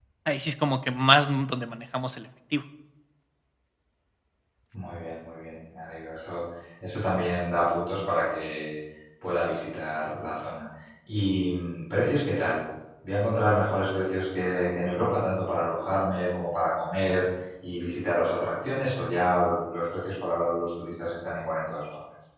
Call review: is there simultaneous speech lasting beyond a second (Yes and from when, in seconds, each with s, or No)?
No